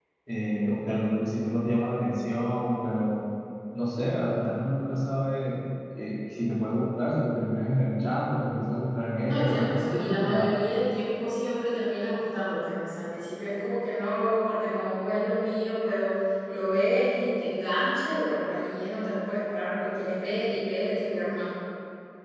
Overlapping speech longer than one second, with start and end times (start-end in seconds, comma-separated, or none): 9.3-10.5